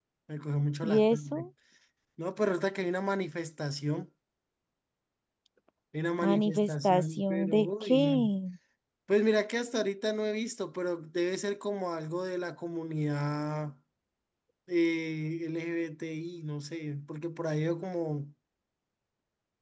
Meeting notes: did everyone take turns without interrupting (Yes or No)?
No